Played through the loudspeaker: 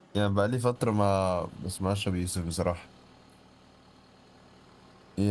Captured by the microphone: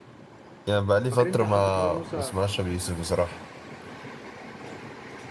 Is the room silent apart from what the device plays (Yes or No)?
No